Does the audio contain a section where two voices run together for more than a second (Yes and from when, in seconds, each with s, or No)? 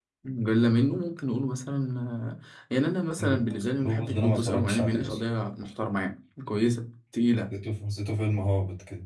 Yes, from 3.3 s